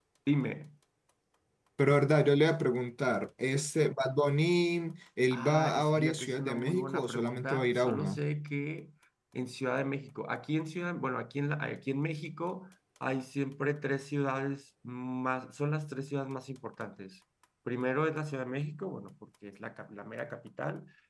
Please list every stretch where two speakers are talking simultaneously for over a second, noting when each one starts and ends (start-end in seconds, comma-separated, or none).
5.3-8.2